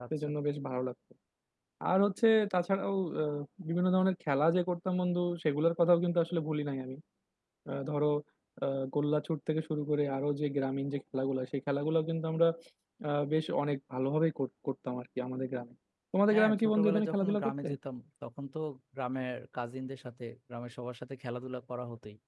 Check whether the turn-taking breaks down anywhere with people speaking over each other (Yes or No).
Yes